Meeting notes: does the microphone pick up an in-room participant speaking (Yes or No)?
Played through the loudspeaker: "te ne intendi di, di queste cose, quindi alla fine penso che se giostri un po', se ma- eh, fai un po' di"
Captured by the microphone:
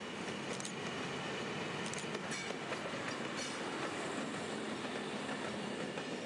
No